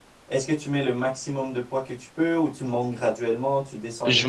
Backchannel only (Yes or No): No